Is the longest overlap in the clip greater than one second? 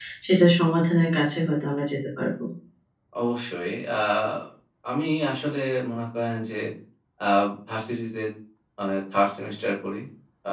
No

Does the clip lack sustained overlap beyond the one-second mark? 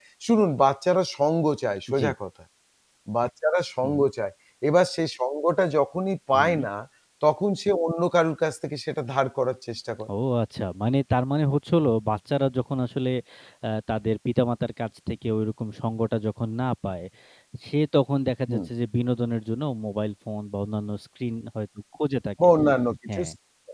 Yes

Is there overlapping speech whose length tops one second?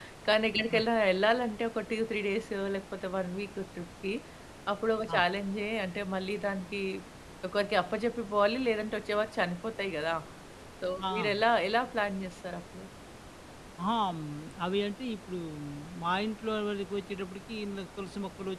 No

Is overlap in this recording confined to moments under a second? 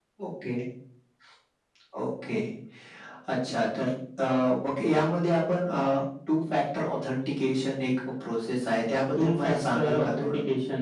No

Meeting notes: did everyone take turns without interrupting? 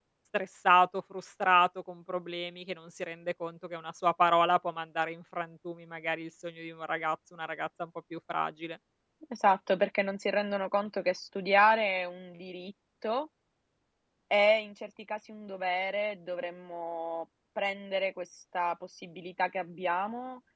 Yes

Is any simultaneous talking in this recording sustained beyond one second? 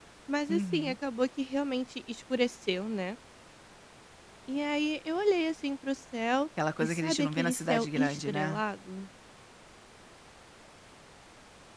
Yes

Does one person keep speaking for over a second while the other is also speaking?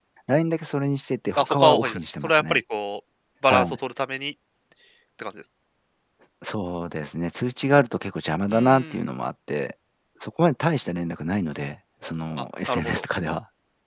Yes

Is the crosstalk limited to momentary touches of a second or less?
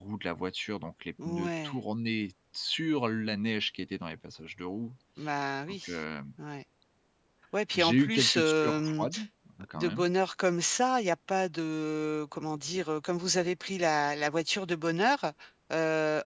No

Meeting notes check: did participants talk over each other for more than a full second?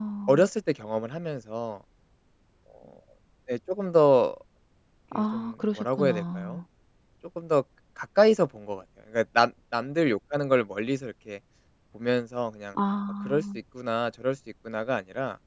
Yes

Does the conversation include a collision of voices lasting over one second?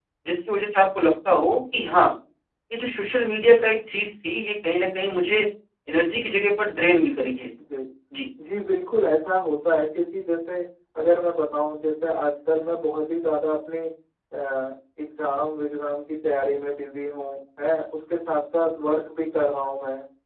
No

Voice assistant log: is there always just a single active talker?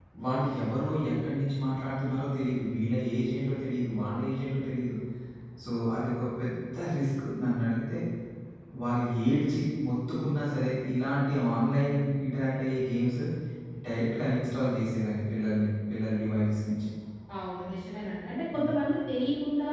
Yes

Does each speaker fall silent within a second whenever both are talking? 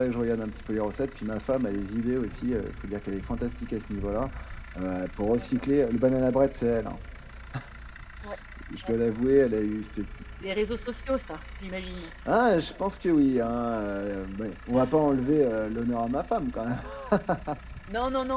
Yes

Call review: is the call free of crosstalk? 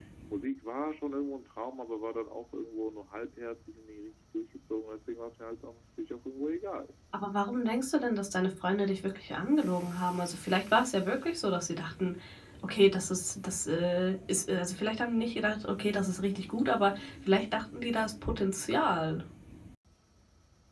Yes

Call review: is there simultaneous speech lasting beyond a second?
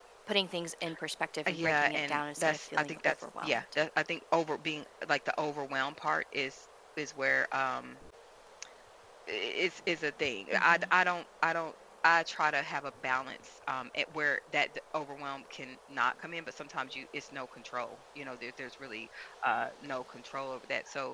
Yes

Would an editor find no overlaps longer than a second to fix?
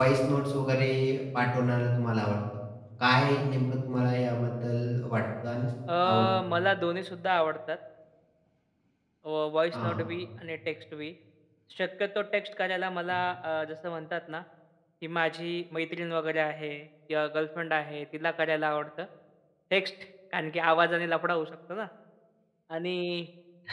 Yes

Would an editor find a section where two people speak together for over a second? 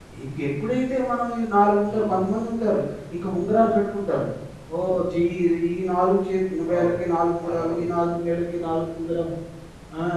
Yes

